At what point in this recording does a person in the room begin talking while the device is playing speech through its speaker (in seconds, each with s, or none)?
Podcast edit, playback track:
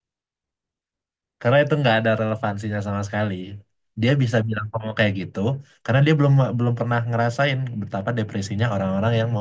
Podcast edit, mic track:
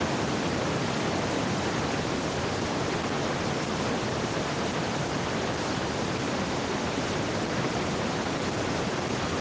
none